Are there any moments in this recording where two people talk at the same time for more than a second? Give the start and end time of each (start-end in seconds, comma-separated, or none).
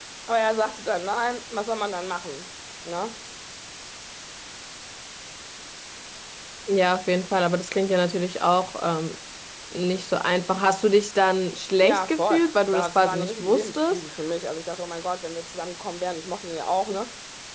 11.8-14.0